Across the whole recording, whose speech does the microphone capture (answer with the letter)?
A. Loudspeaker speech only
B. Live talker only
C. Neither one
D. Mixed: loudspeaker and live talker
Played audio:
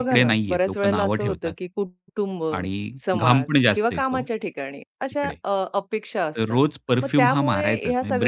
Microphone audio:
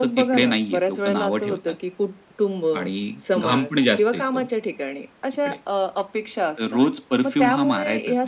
A